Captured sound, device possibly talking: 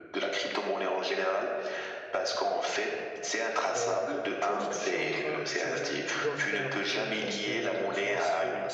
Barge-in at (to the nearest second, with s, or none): 4 s